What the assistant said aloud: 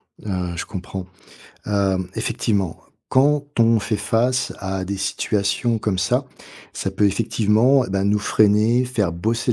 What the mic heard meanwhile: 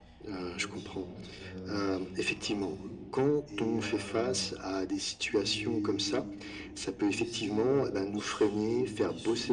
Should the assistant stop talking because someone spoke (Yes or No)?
Yes